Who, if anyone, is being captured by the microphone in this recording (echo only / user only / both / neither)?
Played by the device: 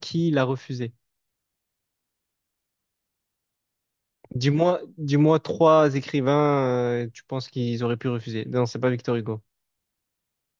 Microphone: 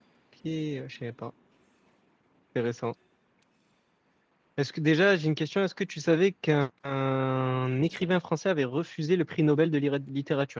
user only